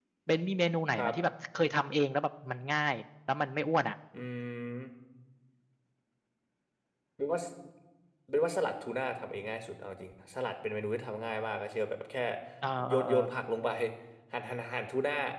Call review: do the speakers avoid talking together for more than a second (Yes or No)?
Yes